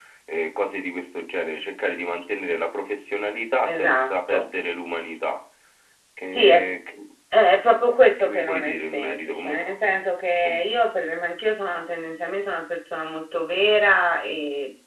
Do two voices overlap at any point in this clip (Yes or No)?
Yes